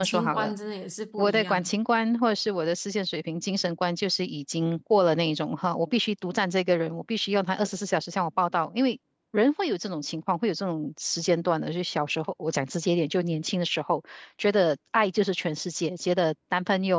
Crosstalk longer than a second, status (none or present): none